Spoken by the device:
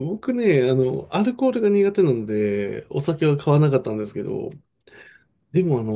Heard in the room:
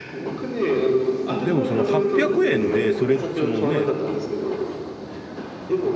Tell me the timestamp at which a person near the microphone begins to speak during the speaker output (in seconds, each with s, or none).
1.3 s